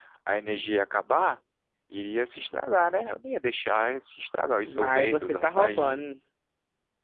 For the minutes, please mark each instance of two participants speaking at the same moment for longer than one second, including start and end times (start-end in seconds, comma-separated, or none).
4.6-6.0